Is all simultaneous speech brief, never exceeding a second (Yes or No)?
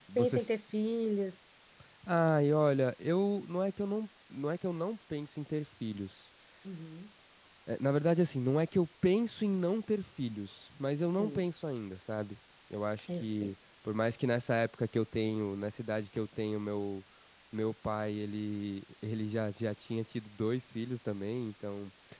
Yes